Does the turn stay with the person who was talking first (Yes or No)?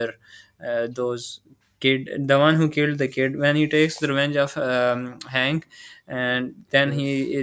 Yes